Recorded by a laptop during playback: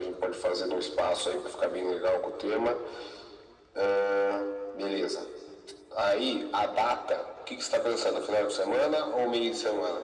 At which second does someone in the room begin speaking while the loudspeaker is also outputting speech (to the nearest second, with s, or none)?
none